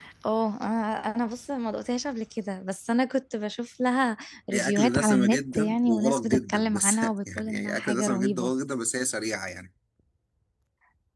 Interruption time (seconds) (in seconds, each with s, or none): 4.5 s